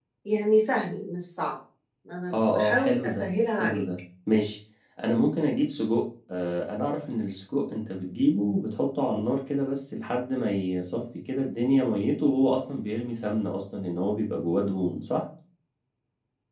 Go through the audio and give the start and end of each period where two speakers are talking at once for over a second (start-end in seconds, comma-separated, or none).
2.3-3.8